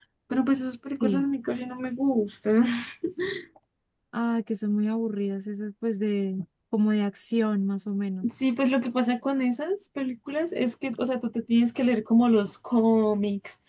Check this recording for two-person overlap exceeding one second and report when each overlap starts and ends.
none

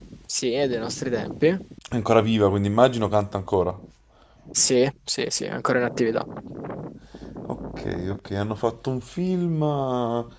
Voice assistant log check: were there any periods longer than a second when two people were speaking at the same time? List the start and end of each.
none

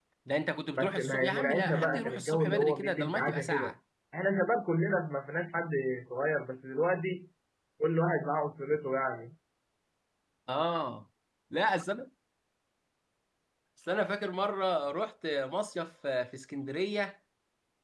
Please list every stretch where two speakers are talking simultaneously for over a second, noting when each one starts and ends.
0.8-3.7

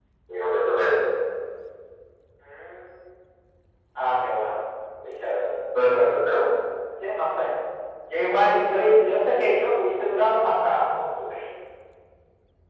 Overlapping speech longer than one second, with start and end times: none

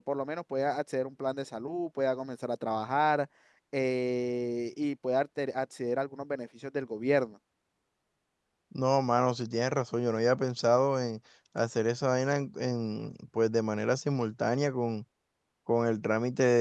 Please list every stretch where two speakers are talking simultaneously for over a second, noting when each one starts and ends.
none

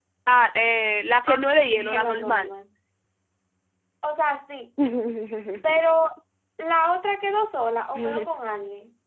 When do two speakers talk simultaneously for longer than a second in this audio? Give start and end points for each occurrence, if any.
1.3-2.5

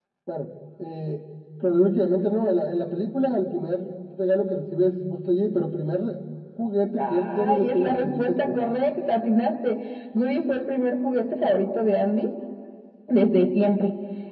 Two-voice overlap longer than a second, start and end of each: 7.1-8.6

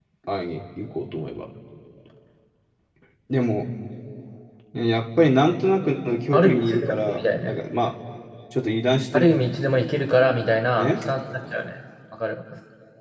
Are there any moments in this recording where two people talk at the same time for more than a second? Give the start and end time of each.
6.3-7.5

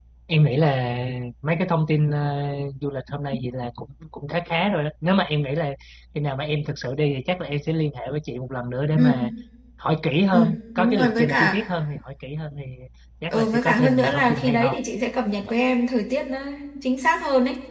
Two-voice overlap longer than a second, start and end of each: 10.3-11.6, 13.3-14.8

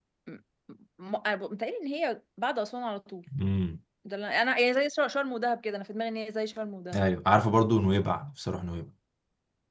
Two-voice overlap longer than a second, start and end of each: none

